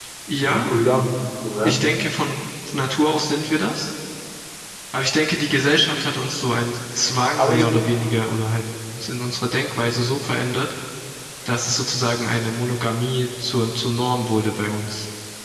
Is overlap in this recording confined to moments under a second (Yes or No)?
Yes